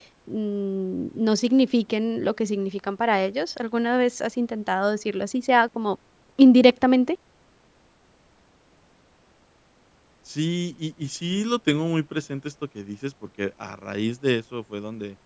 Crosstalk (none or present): none